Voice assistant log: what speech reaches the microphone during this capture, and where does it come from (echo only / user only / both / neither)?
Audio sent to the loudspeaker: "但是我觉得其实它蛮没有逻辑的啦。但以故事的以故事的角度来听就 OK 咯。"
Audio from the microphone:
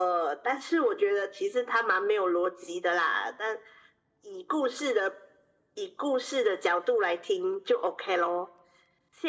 echo only